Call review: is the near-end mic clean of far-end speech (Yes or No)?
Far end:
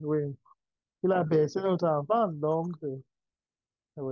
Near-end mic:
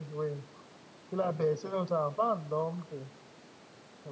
No